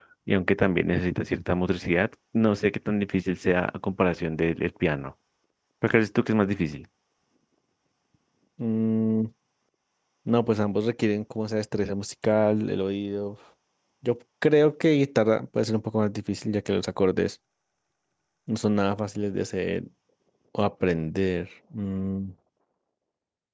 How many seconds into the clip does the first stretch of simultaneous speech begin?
none

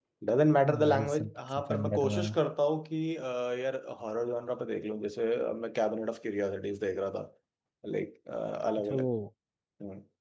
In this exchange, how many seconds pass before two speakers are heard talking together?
0.6 s

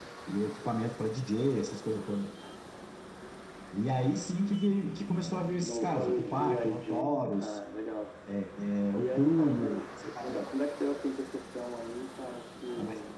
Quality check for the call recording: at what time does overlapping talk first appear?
5.6 s

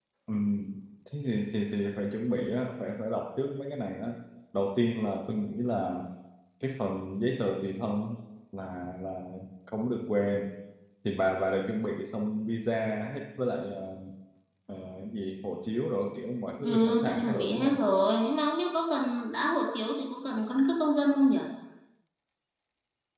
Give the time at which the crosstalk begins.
16.6 s

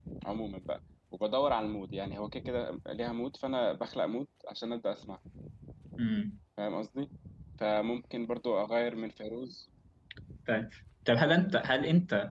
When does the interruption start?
none

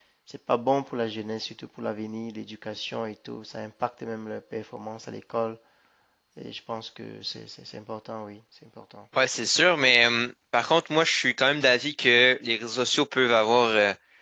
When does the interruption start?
none

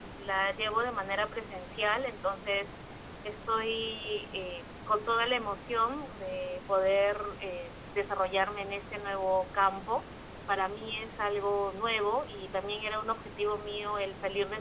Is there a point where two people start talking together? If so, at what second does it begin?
none

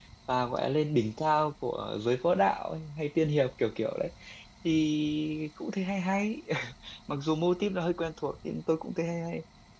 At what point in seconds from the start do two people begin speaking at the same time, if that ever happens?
none

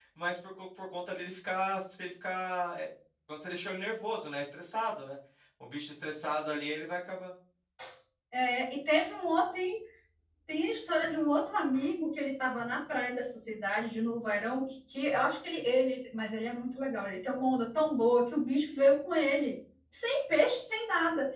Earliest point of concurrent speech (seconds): none

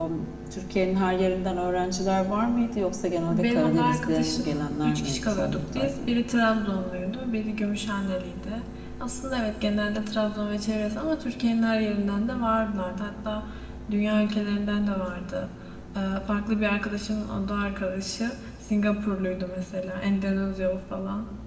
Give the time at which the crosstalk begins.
3.3 s

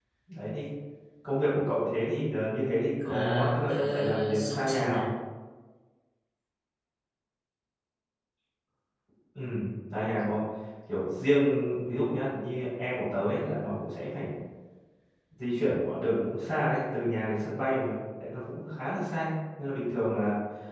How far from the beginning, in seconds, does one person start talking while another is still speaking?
3.0 s

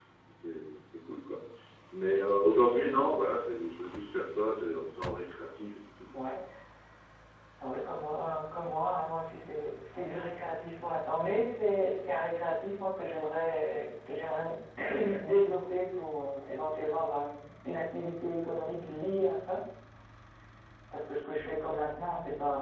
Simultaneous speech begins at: none

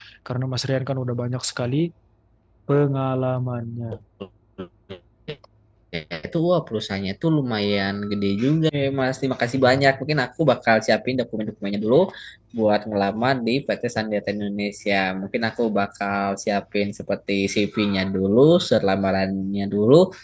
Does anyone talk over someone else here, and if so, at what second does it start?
none

